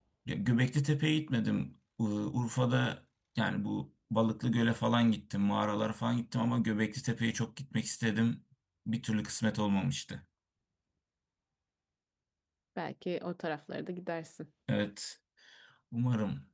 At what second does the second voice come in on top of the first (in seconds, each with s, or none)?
none